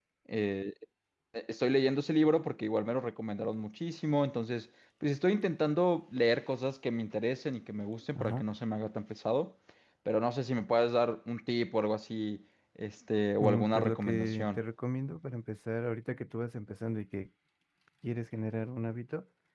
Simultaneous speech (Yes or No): Yes